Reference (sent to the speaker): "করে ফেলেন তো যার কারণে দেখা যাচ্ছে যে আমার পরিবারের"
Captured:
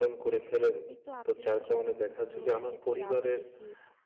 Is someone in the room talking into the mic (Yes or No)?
Yes